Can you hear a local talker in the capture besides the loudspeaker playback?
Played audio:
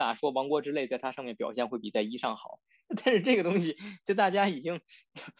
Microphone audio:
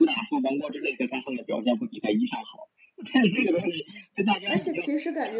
Yes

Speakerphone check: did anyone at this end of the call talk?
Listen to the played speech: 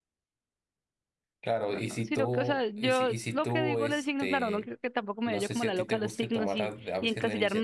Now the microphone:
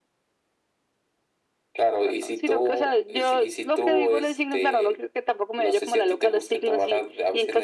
No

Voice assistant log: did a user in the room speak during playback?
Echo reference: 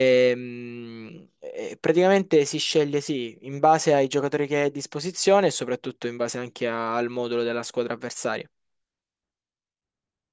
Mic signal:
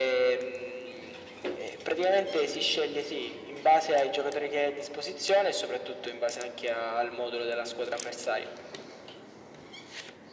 No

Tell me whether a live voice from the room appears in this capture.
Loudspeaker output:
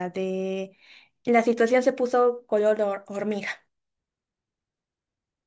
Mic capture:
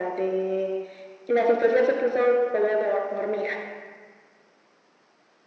No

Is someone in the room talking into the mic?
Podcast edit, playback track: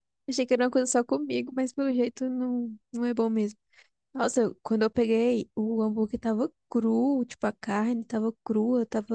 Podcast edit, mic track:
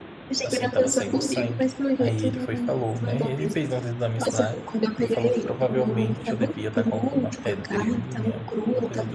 Yes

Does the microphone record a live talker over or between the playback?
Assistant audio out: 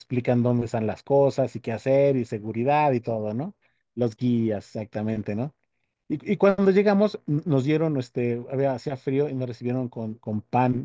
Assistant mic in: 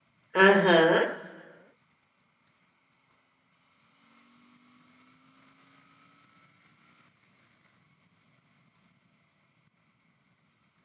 Yes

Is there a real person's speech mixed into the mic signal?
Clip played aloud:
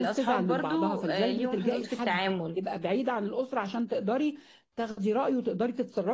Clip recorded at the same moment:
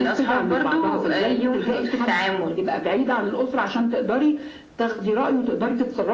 No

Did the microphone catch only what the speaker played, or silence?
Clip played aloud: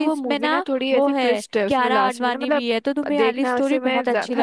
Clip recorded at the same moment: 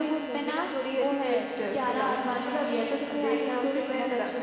Yes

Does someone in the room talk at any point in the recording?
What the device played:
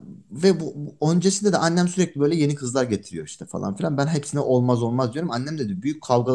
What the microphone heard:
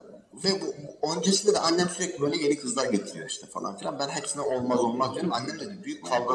Yes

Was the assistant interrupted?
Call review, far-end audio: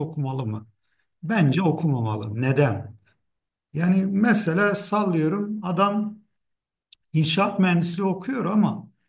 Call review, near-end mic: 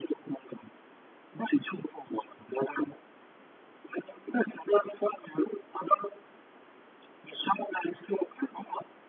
No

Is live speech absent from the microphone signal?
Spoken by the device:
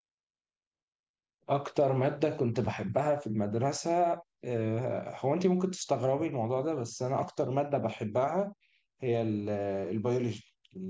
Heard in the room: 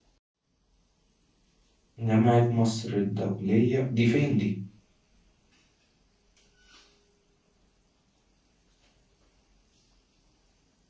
No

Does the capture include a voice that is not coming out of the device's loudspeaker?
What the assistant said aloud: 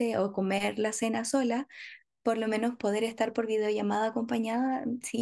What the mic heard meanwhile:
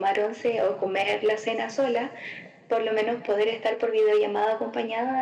No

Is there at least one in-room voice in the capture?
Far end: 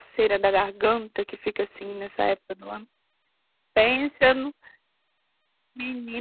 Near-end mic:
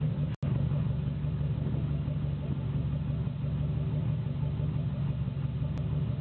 No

